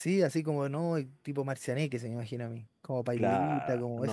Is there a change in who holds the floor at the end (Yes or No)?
Yes